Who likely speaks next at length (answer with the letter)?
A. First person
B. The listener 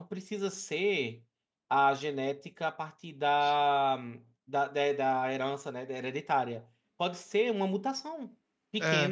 A